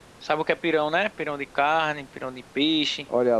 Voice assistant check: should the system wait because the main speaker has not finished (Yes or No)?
No